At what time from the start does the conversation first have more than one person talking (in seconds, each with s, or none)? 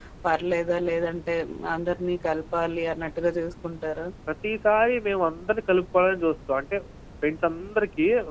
none